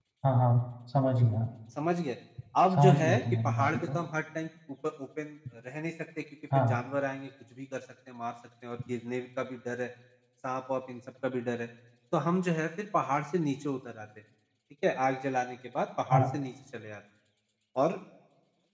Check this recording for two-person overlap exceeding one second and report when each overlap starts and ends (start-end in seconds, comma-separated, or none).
2.7-4.0